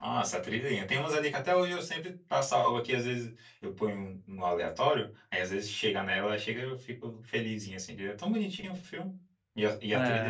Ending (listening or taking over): taking over